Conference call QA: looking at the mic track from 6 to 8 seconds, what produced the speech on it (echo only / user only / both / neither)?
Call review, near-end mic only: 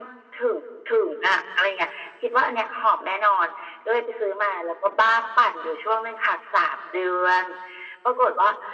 echo only